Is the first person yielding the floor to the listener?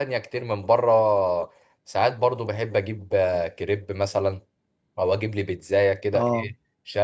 No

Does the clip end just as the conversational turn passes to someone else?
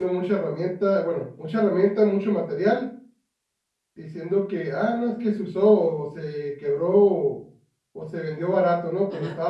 Yes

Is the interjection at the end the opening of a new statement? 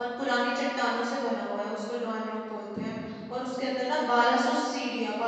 No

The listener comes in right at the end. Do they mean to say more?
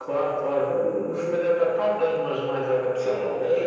Yes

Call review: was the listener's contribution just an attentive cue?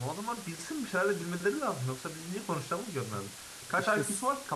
Yes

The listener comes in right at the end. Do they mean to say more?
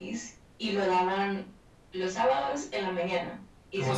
Yes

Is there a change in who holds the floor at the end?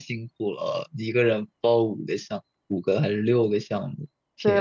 Yes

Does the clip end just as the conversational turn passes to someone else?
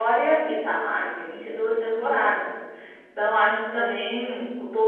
No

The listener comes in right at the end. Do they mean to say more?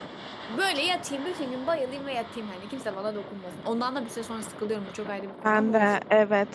Yes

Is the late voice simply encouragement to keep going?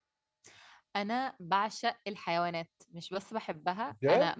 Yes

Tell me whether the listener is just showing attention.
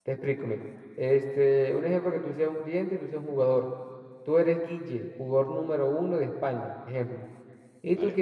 Yes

